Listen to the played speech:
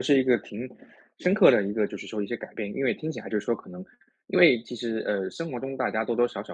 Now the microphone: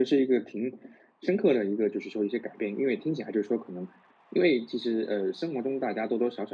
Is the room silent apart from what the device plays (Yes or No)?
Yes